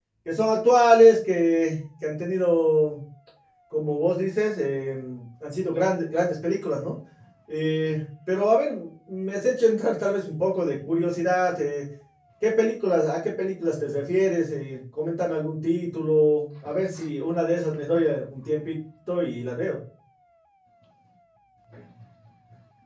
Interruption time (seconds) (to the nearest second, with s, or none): none